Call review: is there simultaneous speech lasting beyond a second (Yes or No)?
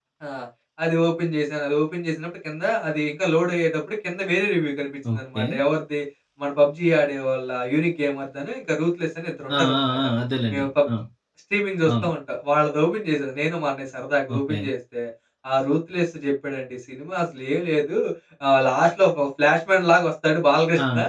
No